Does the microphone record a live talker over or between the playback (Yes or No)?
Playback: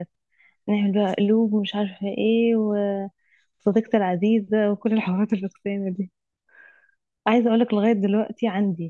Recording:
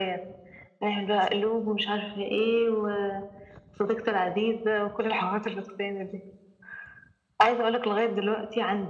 No